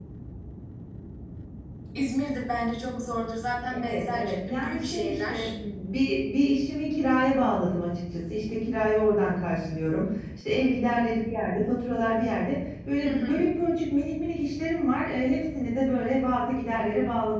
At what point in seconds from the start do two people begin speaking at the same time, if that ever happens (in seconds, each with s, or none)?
3.7 s